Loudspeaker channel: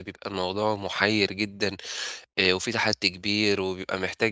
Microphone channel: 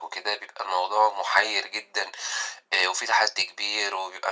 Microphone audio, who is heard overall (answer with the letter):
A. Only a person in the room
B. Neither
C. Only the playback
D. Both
C